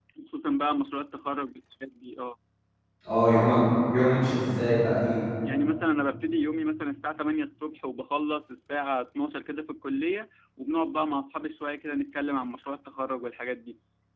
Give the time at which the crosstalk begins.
none

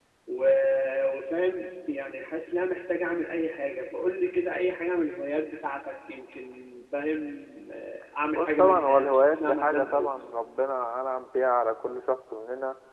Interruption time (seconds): 8.3 s

